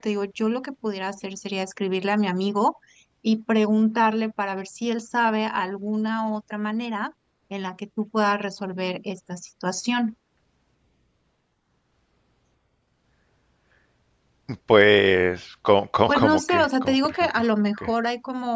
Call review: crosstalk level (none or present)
present